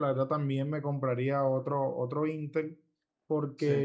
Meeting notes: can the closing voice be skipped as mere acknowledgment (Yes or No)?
Yes